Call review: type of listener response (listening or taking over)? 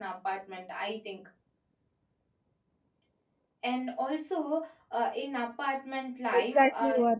taking over